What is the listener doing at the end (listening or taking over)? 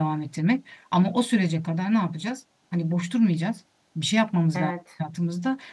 listening